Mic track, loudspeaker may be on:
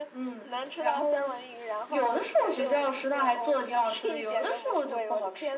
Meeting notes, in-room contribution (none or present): none